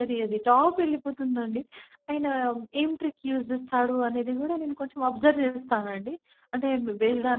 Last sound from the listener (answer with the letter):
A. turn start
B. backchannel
B